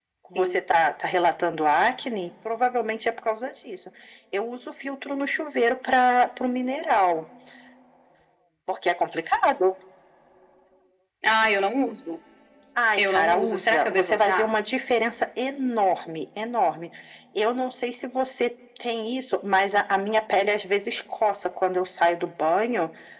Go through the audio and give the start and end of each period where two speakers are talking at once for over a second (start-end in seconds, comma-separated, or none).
13.0-14.5